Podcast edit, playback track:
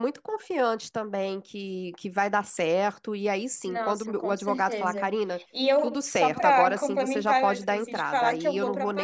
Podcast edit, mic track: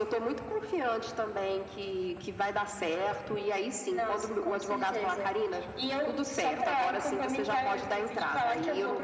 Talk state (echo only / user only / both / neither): echo only